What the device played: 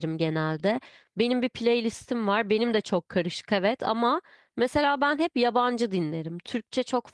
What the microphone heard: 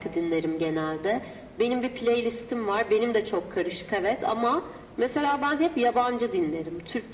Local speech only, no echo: none

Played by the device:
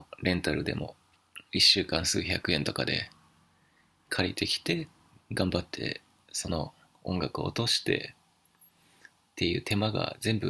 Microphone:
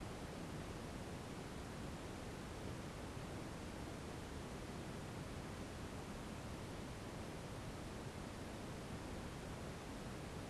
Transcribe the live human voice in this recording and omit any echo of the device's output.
none

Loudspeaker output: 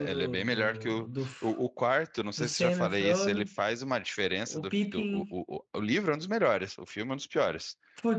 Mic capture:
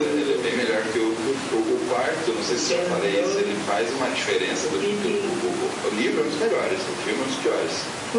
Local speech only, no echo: none

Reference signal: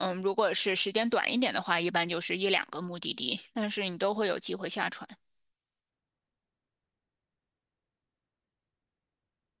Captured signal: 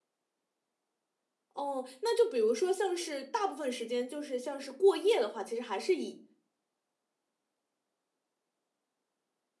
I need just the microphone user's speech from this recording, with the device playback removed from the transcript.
哦，那就比如说像是大部分时间就是像是过夜的话，其实还是以

